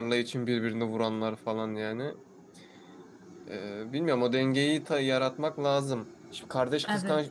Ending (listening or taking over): listening